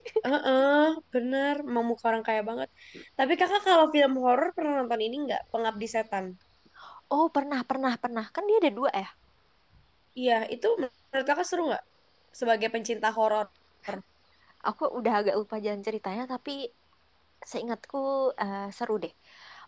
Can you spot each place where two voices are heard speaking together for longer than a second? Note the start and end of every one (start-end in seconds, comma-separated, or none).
none